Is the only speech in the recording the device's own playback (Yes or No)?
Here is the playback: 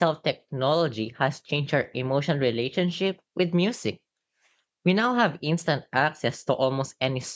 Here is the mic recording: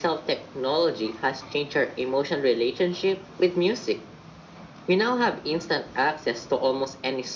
Yes